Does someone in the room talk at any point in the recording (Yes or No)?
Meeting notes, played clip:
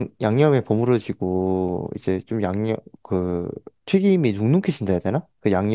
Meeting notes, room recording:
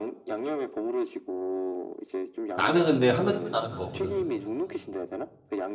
Yes